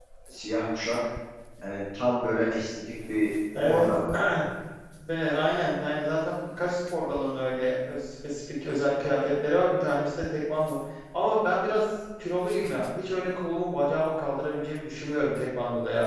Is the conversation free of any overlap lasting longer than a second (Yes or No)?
Yes